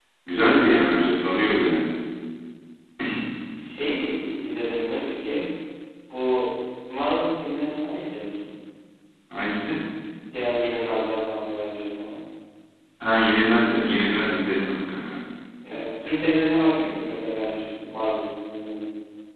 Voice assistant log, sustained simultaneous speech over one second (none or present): none